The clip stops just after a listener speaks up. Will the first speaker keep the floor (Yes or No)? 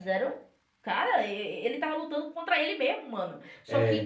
Yes